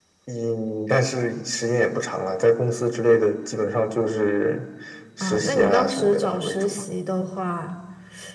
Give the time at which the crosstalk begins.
5.2 s

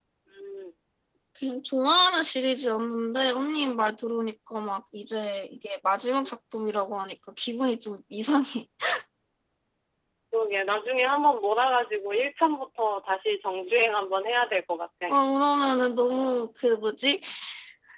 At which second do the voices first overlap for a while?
none

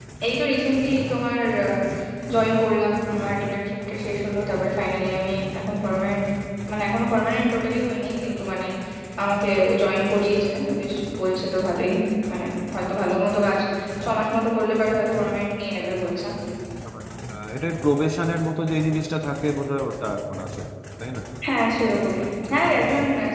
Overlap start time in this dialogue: none

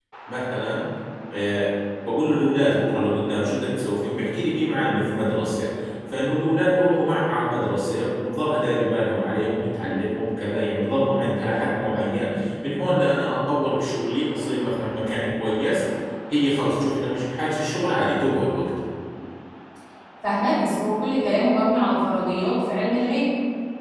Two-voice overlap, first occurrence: none

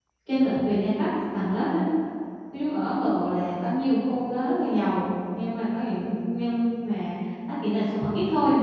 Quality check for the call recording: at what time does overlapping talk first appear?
none

